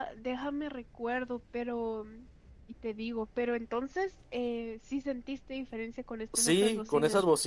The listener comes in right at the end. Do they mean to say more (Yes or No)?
Yes